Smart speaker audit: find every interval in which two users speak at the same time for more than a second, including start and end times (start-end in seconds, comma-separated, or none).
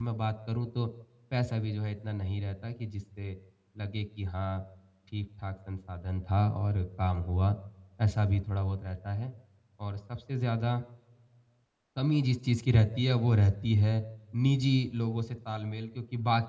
none